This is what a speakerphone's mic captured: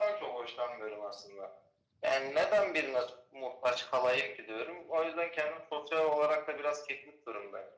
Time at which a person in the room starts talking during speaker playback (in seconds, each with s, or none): none